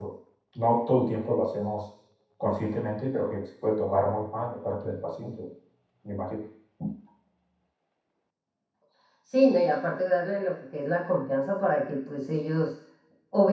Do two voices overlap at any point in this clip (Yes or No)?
No